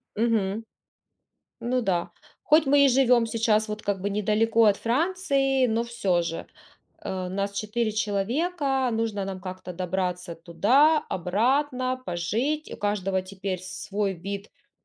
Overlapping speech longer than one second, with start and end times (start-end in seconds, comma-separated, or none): none